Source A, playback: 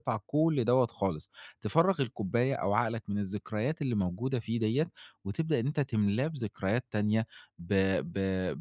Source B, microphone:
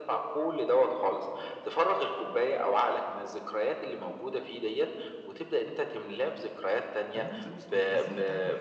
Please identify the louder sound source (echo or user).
echo